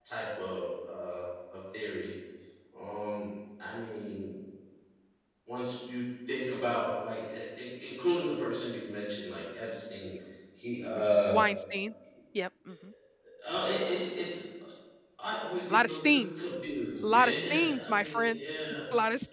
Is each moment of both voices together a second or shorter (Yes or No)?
No